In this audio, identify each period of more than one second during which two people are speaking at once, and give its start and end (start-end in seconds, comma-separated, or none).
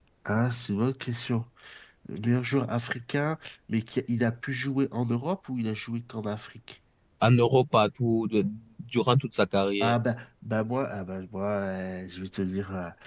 none